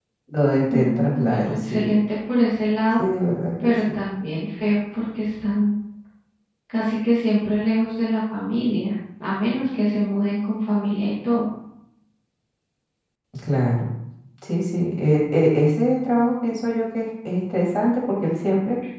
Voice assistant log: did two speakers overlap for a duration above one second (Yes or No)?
Yes